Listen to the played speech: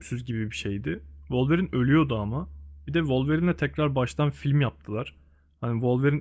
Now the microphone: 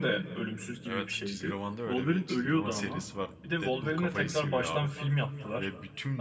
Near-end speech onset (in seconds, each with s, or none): 0.8 s